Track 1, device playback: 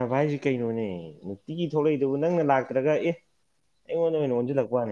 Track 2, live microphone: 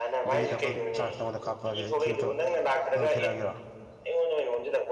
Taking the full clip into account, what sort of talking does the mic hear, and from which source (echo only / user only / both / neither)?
both